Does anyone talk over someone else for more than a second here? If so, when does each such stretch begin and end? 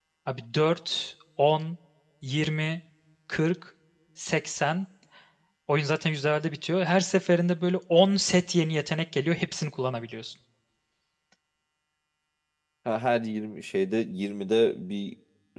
none

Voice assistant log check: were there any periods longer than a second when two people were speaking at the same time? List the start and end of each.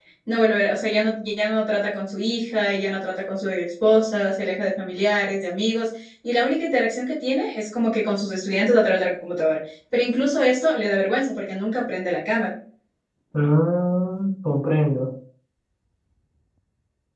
none

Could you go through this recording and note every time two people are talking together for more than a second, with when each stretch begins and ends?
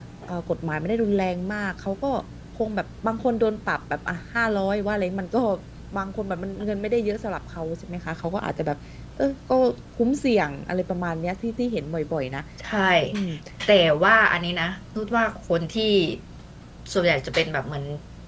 none

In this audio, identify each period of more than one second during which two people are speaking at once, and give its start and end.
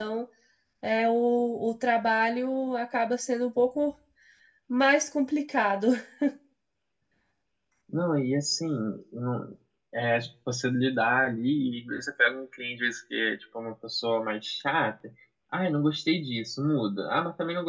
none

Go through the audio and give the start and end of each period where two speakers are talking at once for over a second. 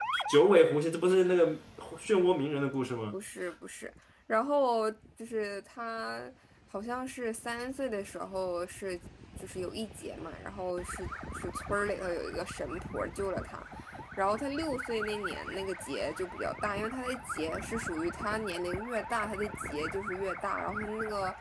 none

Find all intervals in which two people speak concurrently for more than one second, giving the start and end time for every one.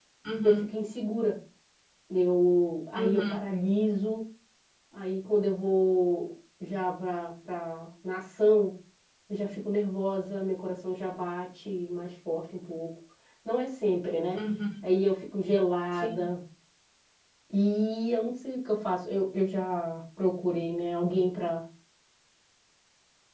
none

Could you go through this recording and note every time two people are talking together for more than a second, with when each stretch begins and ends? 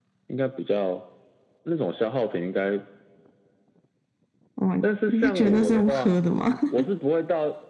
4.8-6.1

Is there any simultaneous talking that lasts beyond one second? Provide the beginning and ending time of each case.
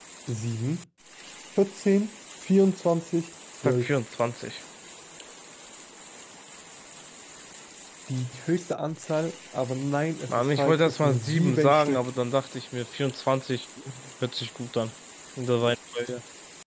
10.3-12.1

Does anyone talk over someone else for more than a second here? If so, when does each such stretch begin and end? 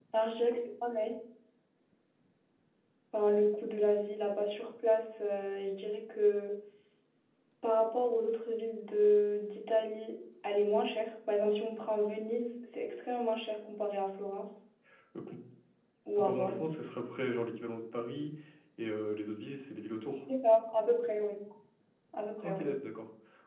none

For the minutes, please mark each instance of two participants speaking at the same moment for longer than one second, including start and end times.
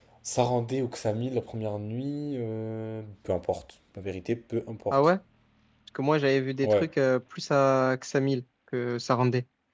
none

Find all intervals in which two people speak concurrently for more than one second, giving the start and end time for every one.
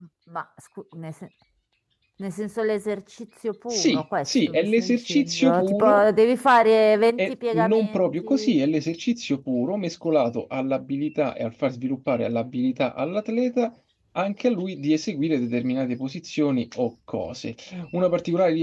3.7-6.0, 7.2-8.6

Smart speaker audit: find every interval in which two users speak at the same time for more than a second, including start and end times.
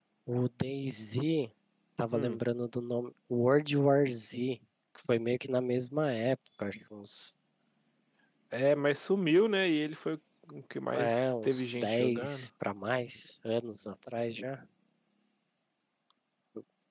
10.9-12.5

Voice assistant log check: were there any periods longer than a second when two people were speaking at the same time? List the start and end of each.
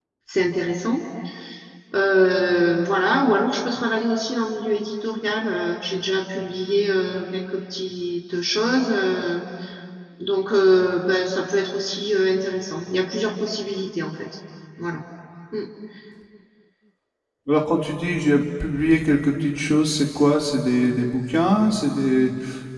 none

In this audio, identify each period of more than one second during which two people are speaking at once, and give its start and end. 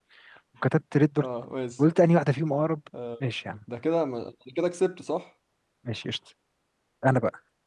none

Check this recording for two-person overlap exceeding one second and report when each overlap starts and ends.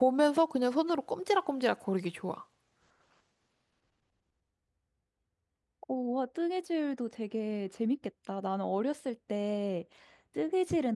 none

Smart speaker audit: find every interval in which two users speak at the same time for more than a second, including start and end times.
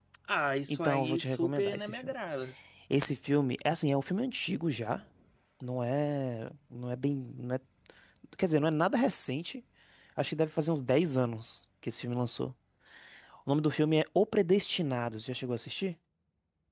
0.7-2.1

